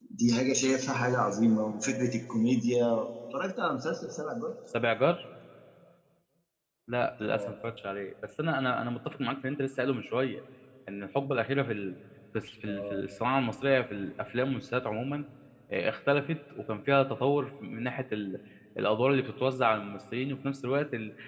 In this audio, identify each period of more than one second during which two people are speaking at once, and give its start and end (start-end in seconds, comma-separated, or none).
none